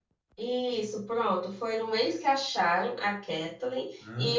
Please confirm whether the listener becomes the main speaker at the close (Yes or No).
No